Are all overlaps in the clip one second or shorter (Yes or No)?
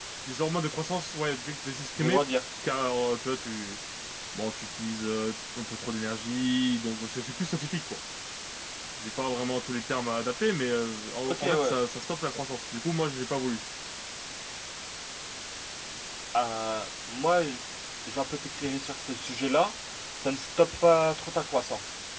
Yes